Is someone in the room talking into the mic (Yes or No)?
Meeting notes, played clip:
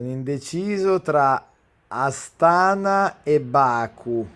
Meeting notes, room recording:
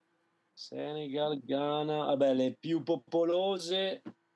Yes